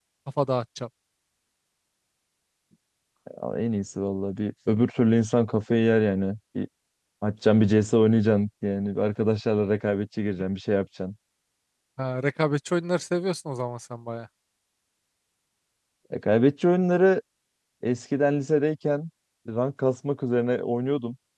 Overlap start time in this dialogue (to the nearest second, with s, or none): none